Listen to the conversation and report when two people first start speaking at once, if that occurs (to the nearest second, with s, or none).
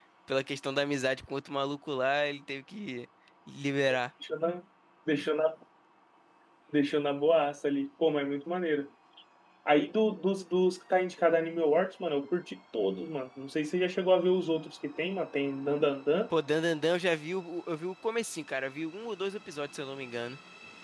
none